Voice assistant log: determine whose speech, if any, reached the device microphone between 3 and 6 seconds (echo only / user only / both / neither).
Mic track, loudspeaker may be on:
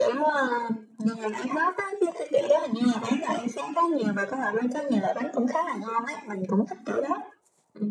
echo only